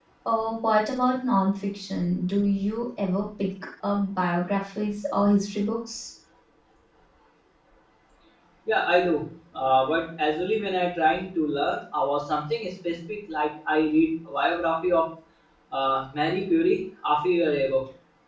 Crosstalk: none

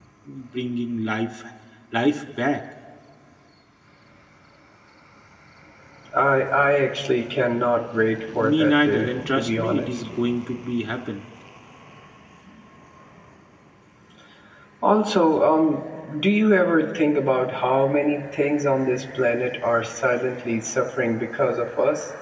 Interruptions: present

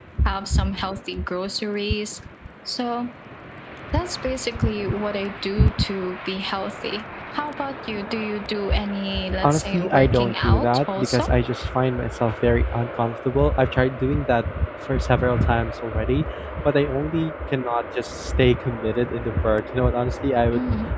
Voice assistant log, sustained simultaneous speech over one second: present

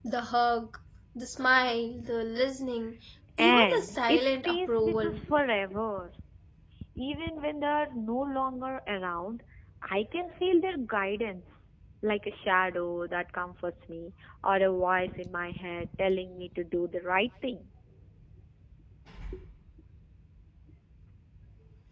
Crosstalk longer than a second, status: present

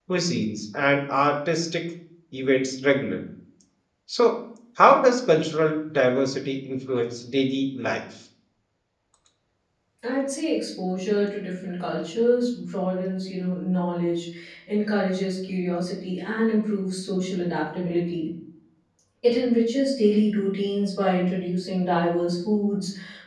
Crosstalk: none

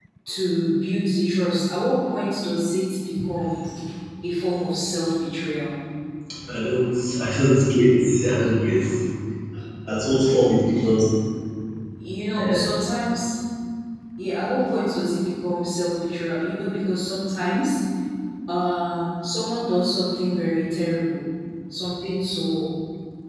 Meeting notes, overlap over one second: none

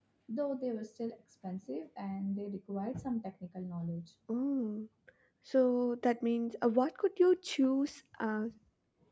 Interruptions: none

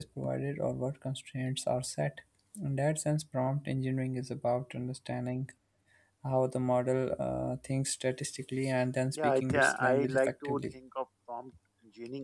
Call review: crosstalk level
present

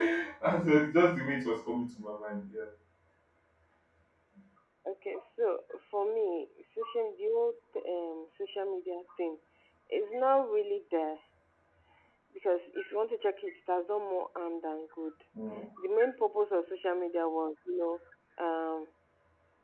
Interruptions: none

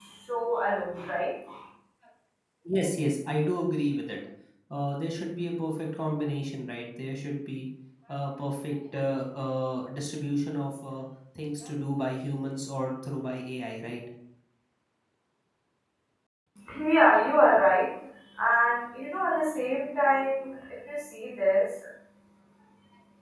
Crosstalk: none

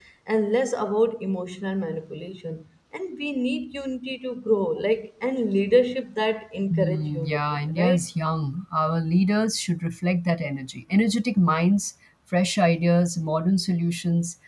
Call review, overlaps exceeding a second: present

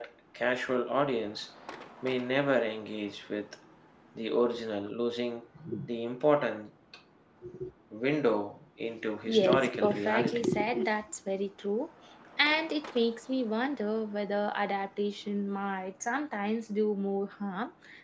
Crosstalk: present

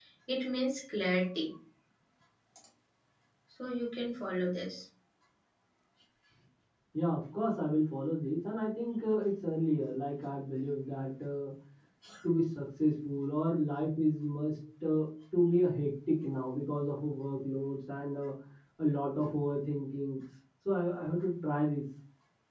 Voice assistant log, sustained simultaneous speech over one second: none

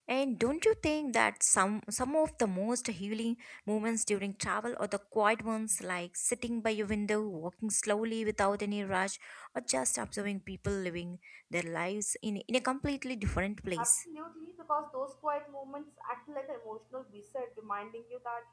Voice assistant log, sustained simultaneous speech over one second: none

